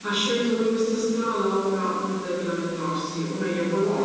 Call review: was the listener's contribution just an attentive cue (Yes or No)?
Yes